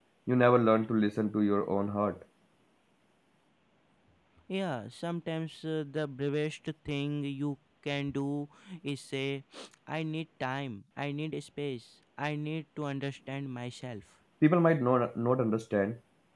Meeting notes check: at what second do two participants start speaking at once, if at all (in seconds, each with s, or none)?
none